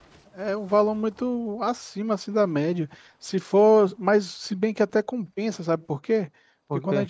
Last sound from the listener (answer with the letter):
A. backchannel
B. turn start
A